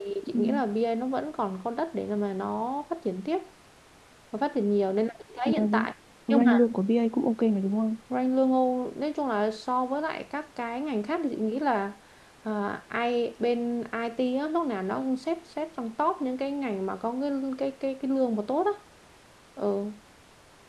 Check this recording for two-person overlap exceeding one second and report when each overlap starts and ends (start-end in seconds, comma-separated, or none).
none